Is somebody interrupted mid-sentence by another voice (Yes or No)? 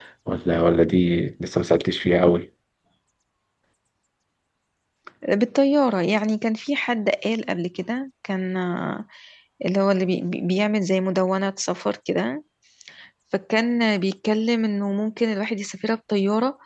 No